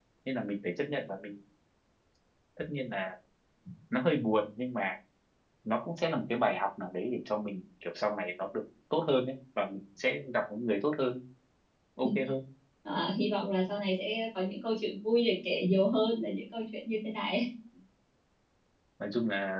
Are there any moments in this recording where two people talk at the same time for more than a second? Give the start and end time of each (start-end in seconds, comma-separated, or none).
none